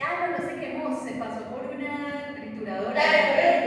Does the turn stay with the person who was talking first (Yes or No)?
No